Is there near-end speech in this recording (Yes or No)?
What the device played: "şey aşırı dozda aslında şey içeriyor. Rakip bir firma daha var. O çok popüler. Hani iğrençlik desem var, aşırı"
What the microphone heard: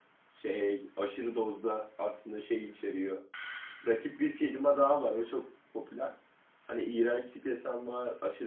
No